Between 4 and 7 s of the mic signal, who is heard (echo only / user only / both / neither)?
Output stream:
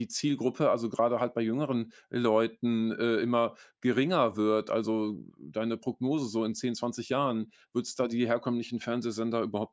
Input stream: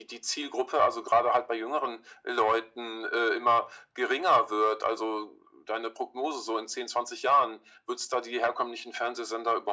echo only